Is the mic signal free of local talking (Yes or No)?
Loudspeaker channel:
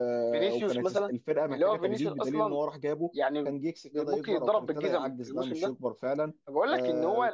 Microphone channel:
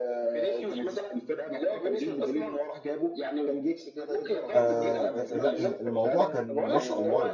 No